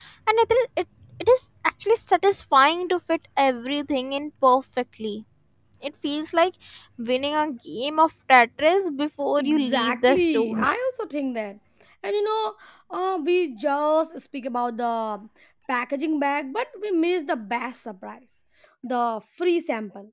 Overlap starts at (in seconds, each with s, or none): 9.4 s